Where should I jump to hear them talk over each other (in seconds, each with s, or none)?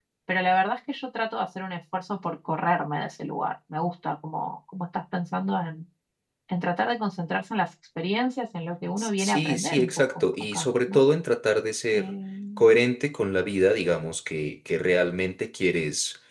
9.0 s